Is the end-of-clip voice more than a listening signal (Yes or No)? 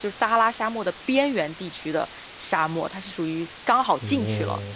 No